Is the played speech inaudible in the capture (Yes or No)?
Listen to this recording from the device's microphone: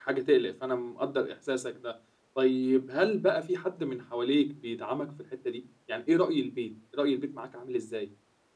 Yes